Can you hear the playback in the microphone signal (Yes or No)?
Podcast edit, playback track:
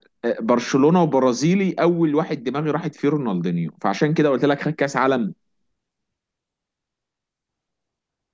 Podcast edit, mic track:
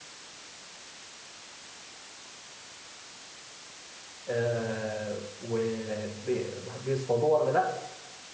No